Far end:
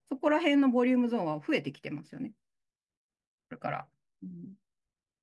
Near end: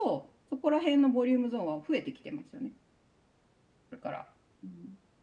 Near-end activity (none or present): none